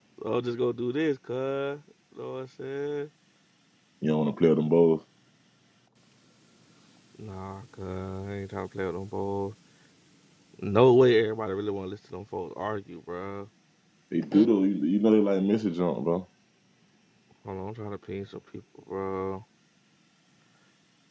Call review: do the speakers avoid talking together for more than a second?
Yes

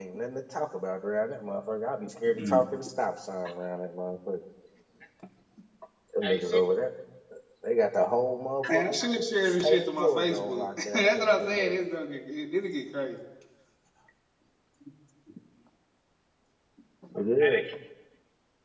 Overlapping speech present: Yes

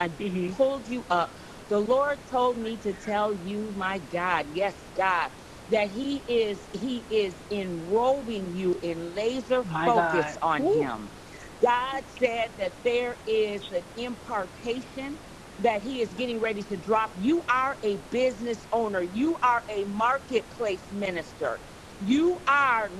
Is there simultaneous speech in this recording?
Yes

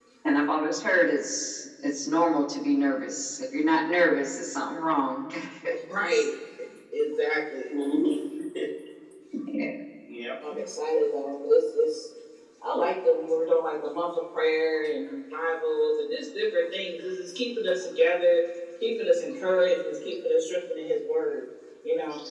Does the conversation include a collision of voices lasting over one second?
No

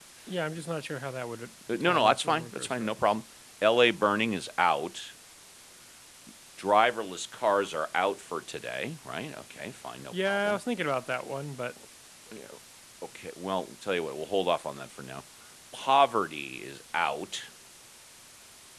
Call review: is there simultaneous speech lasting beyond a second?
Yes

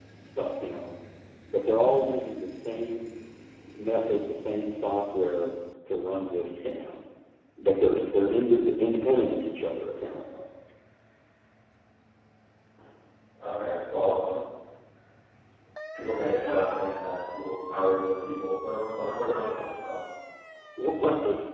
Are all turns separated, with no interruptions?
Yes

